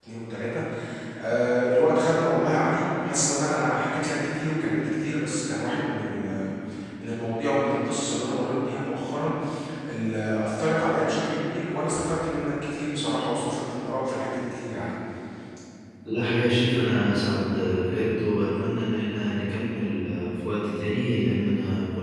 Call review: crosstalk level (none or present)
none